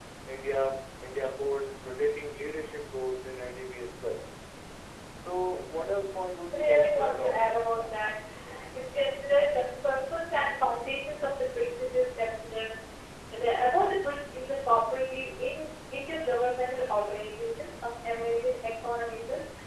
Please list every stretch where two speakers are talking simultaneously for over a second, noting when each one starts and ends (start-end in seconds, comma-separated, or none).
6.5-7.9